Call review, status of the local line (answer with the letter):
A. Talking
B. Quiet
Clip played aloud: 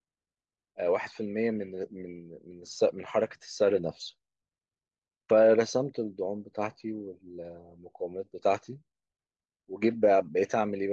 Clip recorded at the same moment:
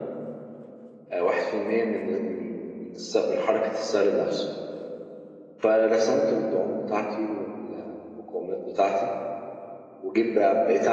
B